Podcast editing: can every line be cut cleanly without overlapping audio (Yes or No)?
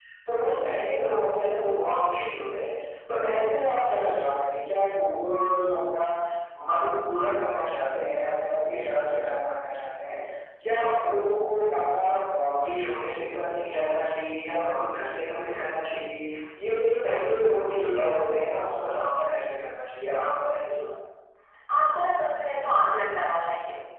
Yes